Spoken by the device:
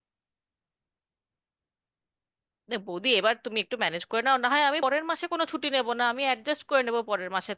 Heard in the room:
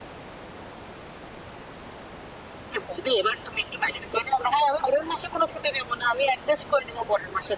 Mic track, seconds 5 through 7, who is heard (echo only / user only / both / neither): echo only